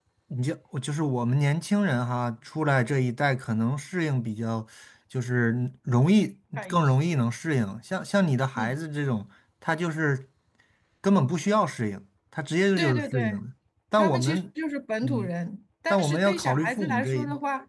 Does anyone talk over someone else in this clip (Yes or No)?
Yes